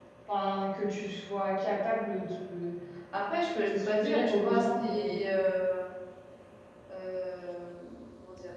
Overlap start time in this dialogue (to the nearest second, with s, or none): 4 s